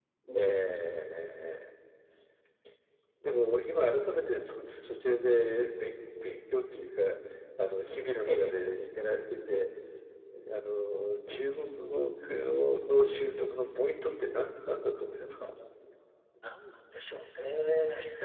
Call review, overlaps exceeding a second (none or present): none